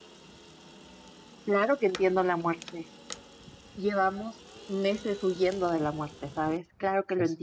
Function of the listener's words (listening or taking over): listening